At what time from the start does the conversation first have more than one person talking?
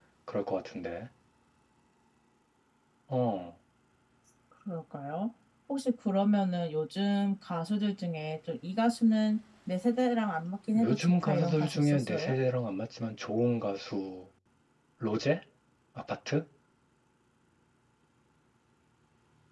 10.8 s

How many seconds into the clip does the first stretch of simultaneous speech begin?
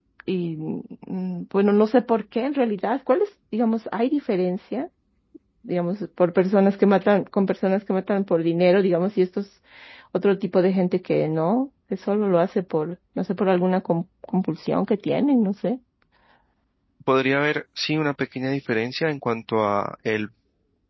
none

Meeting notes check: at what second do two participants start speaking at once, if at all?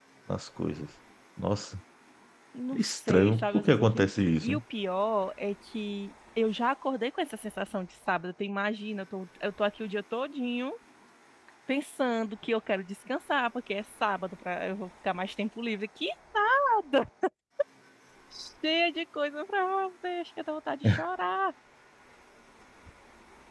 2.7 s

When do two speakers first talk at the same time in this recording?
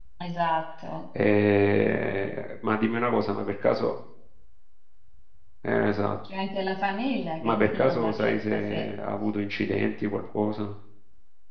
7.4 s

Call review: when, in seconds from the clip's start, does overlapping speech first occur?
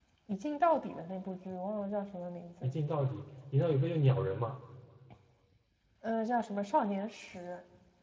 none

